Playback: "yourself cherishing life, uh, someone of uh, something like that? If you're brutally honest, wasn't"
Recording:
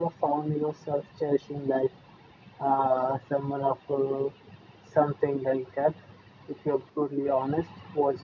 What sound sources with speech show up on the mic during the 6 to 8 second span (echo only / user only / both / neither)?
echo only